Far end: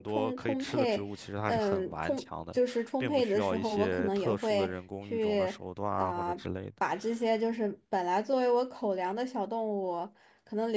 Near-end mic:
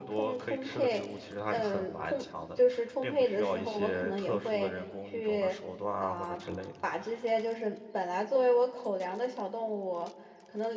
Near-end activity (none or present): none